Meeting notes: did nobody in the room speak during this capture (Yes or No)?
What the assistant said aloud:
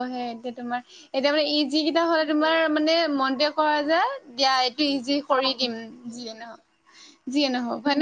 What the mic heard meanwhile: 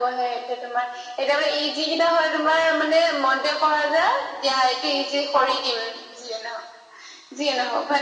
Yes